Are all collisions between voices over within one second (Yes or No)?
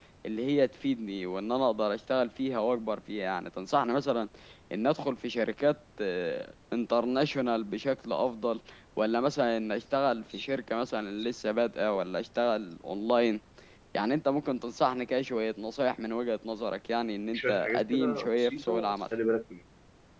No